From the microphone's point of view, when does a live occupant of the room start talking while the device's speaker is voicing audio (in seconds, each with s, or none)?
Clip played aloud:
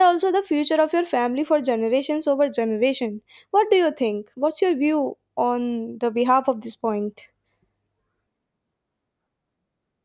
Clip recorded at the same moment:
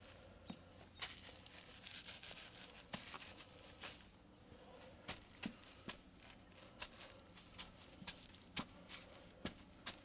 none